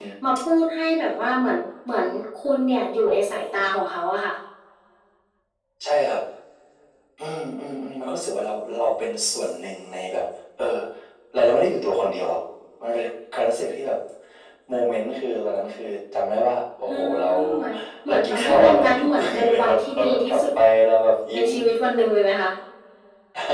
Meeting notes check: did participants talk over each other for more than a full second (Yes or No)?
Yes